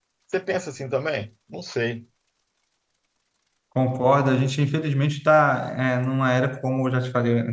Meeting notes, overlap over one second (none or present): none